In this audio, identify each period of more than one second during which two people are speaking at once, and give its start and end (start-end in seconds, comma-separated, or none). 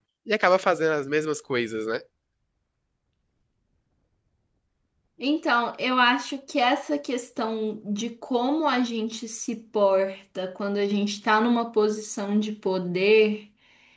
none